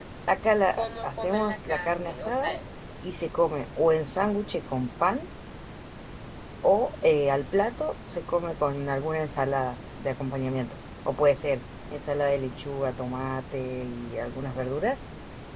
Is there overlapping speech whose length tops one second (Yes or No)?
Yes